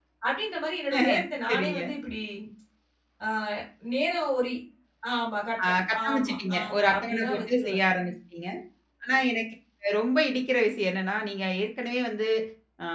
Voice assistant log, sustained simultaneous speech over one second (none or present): present